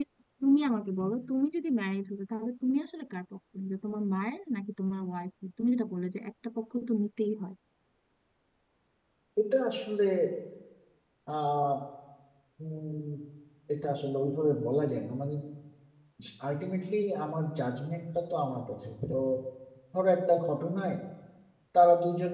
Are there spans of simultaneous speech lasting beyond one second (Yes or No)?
No